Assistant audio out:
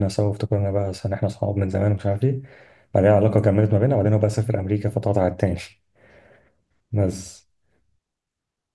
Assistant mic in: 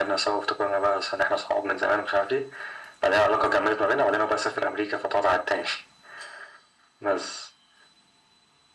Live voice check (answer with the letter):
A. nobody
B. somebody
A